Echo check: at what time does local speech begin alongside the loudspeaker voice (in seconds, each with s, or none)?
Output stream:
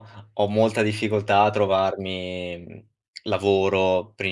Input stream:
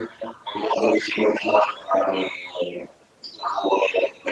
none